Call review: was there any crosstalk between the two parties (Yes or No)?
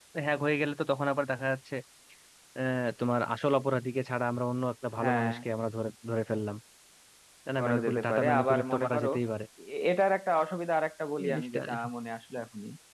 Yes